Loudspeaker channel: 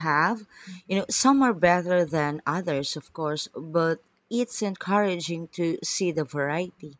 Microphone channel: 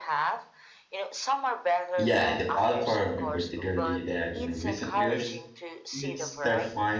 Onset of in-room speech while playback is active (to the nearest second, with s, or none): 2 s